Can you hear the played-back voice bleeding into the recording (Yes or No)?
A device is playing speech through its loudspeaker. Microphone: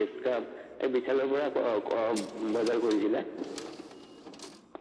Yes